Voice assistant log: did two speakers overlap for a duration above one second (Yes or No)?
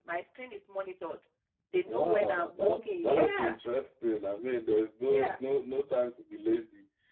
Yes